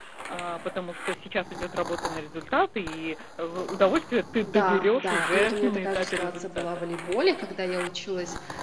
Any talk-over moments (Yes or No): Yes